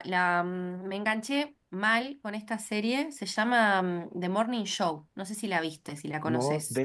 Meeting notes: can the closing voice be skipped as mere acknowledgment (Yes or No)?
No